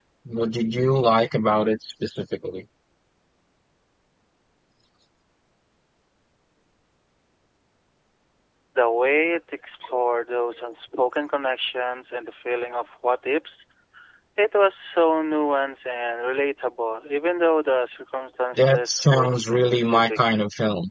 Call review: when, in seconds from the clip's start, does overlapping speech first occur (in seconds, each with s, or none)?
18.6 s